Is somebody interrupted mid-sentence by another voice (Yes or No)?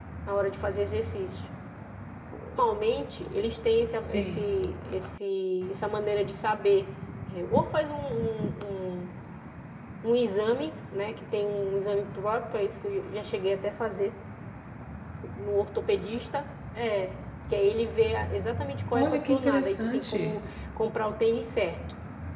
Yes